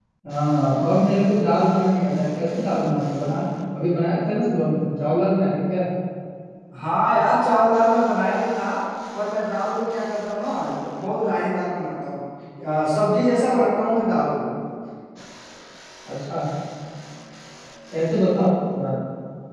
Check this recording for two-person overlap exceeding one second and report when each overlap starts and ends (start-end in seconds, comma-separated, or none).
none